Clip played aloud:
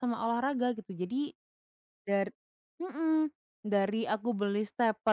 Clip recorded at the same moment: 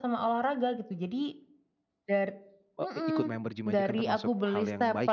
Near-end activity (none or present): present